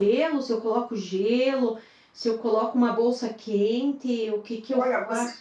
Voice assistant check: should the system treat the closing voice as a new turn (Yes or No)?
Yes